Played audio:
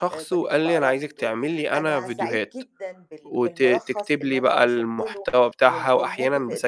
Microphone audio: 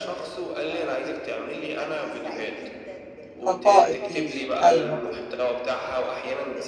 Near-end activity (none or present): present